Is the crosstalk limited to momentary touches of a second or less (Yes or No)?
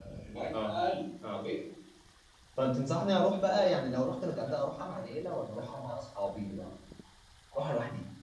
Yes